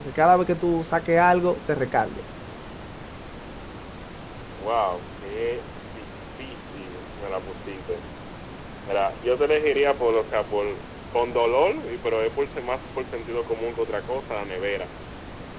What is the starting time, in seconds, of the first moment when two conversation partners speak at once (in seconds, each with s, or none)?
none